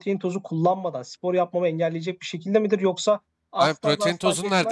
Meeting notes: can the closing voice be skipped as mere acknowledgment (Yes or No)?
No